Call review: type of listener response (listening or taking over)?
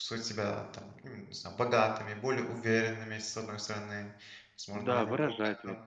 taking over